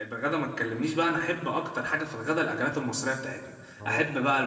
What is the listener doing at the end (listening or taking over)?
listening